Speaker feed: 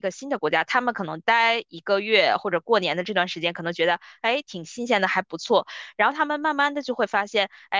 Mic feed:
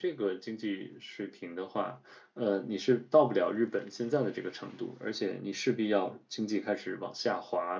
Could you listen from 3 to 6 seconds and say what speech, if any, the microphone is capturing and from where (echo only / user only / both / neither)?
user only